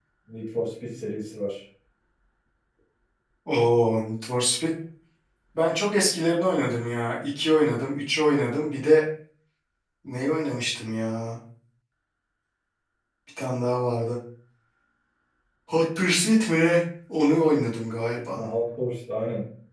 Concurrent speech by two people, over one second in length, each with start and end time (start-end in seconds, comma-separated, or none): none